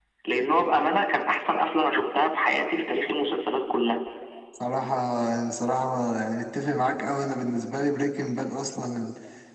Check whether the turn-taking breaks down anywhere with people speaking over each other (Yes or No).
No